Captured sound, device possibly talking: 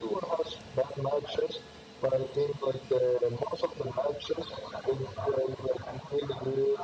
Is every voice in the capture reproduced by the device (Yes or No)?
Yes